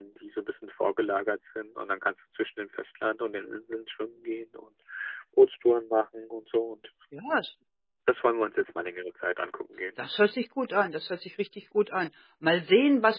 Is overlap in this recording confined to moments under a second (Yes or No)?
Yes